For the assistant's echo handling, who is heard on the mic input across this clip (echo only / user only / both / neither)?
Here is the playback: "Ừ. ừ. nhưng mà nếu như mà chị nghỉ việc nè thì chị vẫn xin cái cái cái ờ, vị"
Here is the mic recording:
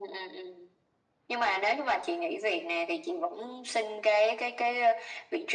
echo only